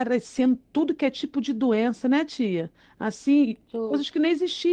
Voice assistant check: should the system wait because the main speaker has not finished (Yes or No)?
Yes